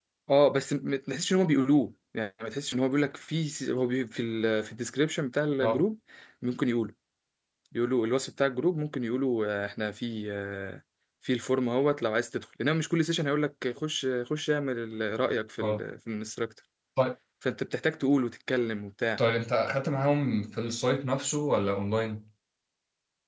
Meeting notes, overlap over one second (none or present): none